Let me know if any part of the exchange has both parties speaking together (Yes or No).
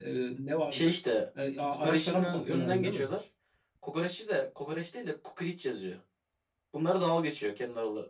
Yes